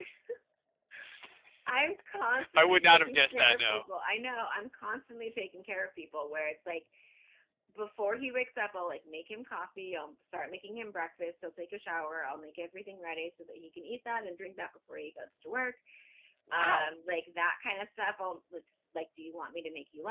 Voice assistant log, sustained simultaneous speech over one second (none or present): present